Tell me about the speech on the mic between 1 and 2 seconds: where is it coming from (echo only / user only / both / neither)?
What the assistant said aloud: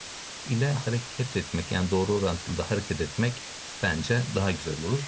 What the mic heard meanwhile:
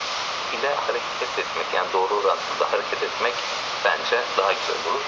echo only